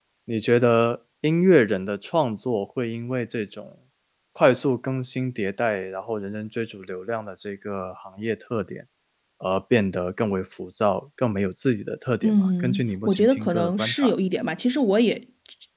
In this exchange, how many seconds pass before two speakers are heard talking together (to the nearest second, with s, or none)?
12 s